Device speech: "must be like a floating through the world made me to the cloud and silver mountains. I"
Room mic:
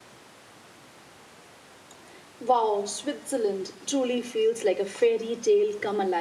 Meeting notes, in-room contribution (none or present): present